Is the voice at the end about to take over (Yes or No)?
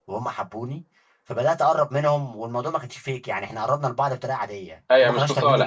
Yes